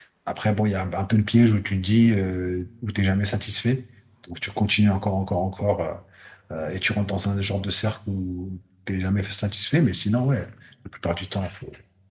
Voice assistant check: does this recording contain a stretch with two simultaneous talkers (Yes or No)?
No